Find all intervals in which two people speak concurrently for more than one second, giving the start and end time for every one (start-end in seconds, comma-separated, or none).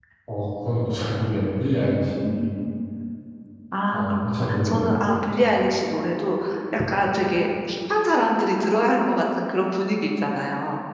3.9-5.2